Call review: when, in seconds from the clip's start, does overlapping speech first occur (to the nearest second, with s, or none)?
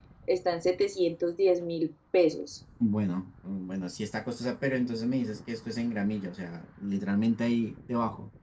none